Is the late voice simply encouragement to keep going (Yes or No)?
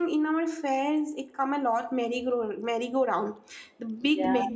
Yes